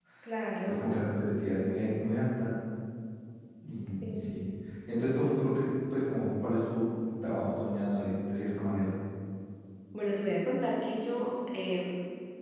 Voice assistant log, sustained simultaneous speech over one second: none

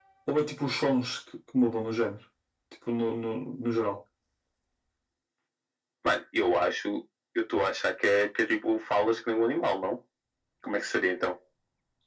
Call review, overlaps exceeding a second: none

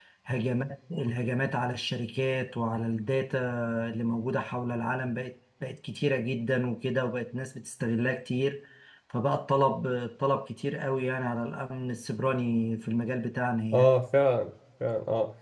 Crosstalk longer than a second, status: none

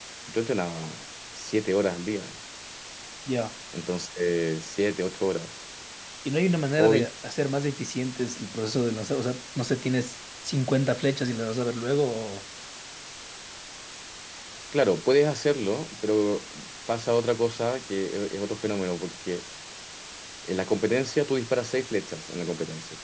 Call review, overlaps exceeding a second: none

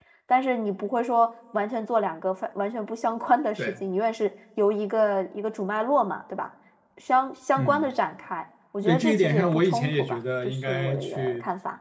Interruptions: present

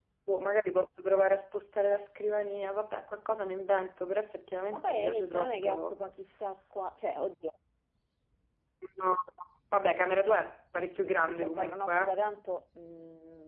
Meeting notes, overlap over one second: present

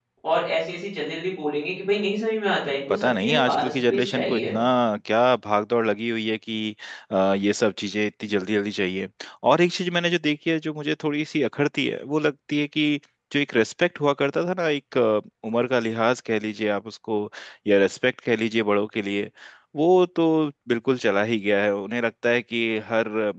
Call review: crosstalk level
present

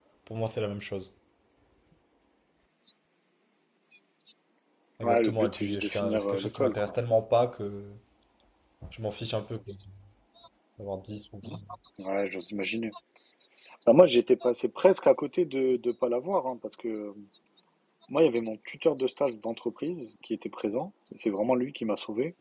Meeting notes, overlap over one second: present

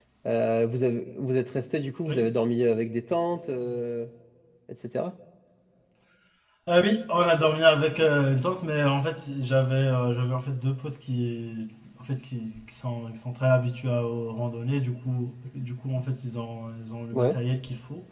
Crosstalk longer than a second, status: none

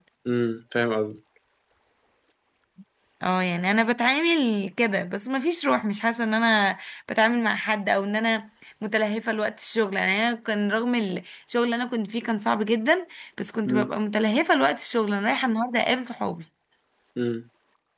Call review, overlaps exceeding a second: none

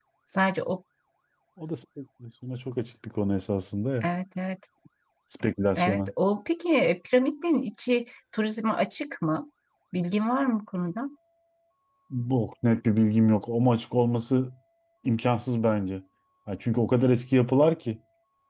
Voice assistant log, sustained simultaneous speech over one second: none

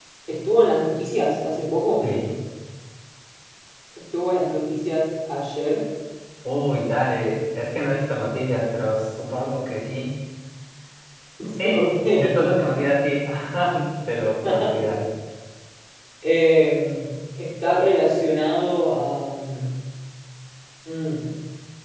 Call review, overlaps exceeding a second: none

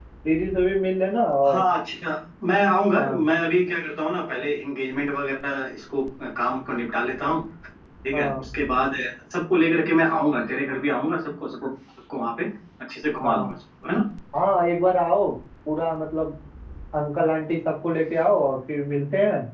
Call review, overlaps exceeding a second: none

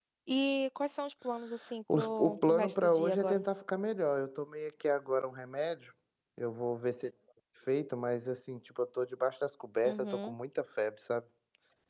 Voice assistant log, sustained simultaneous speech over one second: present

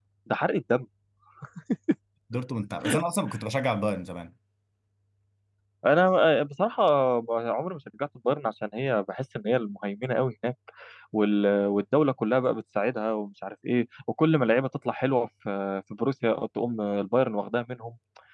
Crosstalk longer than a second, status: none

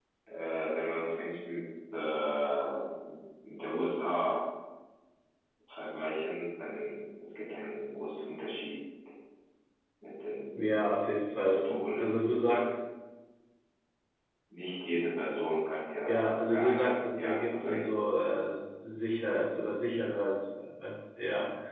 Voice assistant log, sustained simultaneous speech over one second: present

